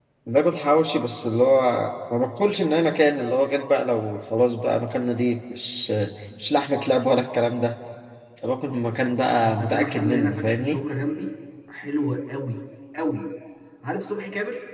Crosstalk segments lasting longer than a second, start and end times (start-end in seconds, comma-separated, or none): 9.4-10.8